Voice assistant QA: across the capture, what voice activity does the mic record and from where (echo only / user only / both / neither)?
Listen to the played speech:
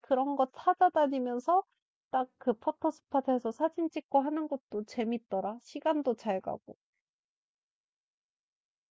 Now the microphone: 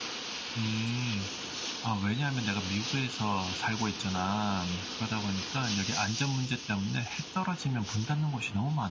user only